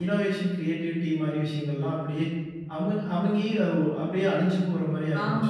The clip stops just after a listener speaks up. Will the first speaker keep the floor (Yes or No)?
No